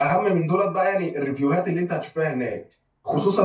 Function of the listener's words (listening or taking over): listening